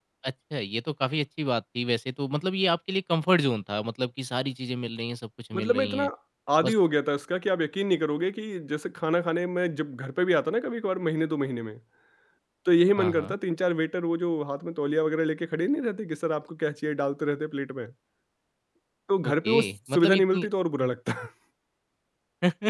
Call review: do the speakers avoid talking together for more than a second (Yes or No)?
No